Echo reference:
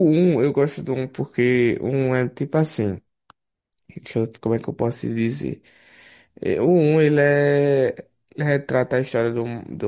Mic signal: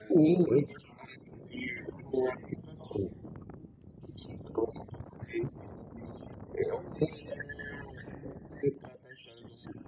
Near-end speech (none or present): none